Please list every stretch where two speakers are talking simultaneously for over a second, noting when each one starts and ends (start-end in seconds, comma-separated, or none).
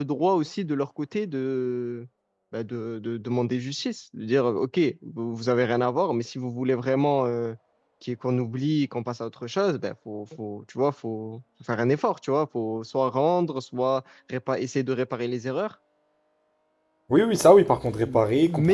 none